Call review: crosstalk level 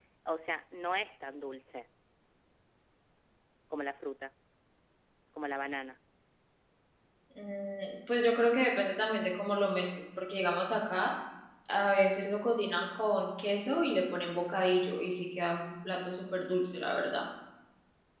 none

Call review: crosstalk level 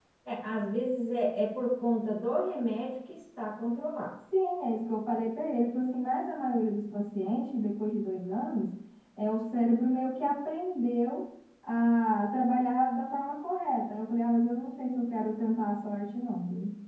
none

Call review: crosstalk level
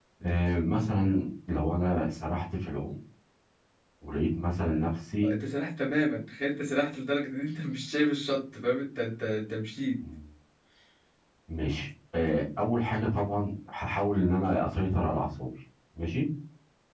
none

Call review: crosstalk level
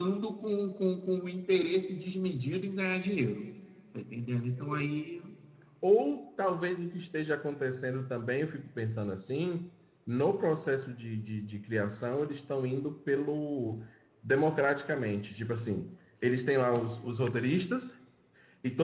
none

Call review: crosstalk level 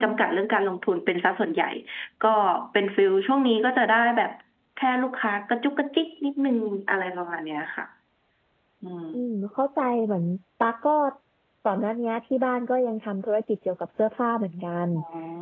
none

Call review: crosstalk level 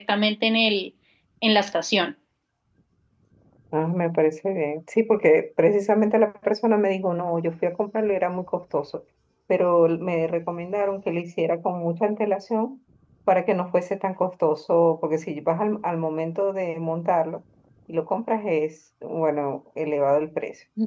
none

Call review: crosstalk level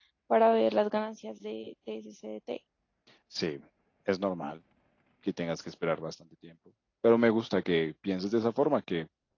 none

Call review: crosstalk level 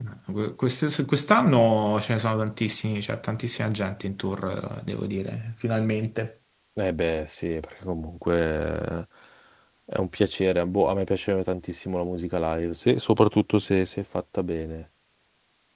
none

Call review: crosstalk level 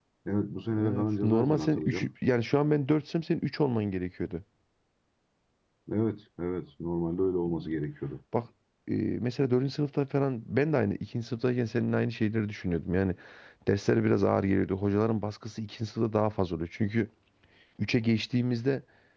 present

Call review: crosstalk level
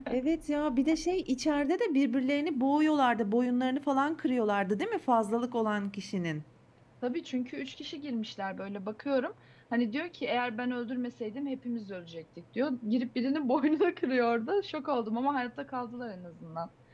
none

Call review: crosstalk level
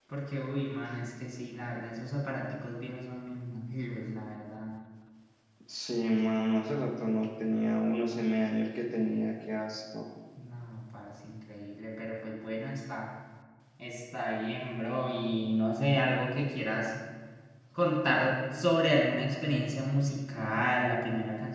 none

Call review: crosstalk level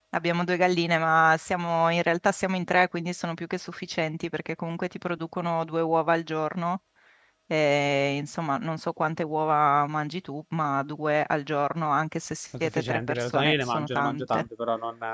present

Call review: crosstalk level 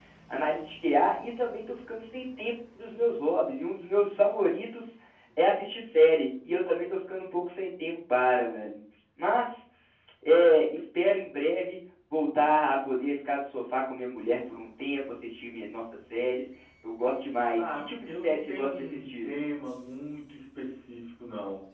present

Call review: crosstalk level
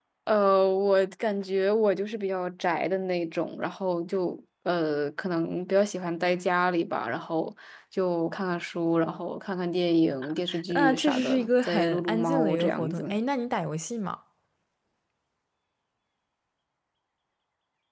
present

